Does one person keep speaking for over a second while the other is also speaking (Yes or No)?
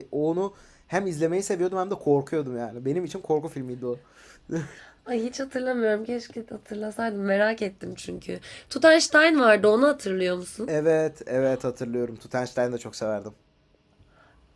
No